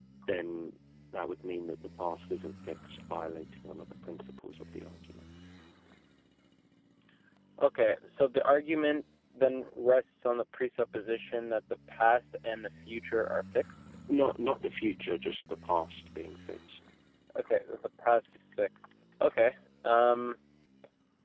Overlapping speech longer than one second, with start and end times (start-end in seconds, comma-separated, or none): none